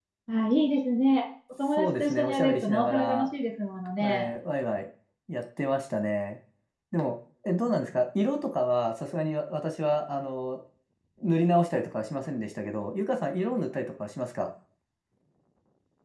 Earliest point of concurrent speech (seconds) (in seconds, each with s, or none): 1.8 s